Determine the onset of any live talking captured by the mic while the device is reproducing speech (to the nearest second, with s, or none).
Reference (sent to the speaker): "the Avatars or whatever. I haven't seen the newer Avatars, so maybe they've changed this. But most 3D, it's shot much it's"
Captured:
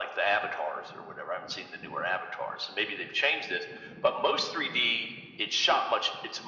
none